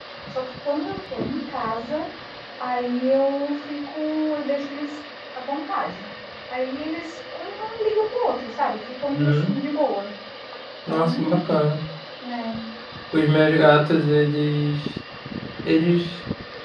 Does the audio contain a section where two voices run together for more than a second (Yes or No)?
No